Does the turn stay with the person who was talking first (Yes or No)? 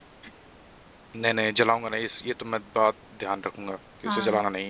No